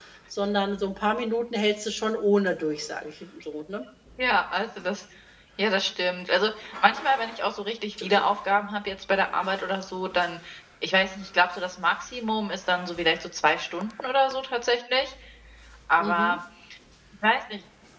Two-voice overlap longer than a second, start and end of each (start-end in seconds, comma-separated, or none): none